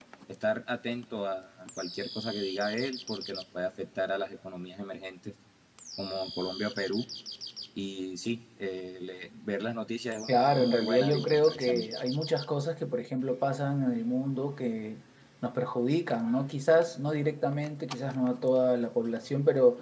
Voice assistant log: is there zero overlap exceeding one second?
No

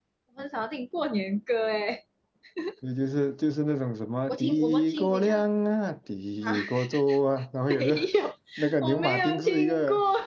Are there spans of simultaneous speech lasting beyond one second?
Yes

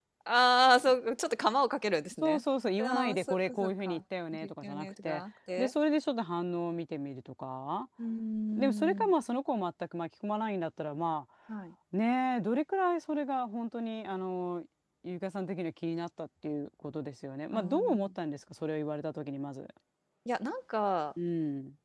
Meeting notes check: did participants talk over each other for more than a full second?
Yes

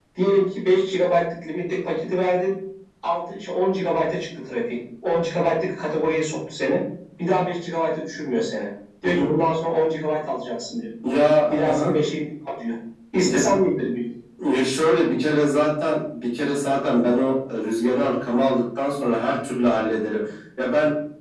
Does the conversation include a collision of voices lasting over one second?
No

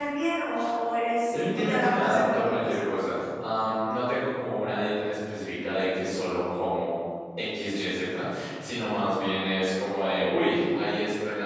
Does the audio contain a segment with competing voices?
Yes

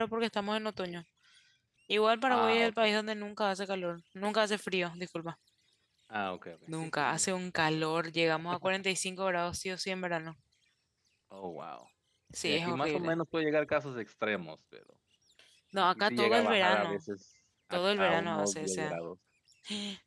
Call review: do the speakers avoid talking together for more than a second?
No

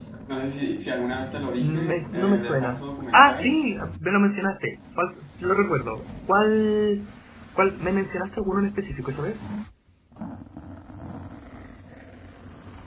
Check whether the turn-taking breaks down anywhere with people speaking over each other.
Yes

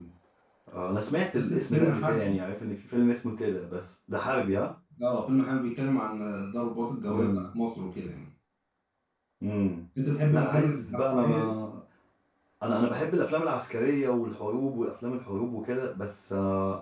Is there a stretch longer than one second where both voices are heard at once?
Yes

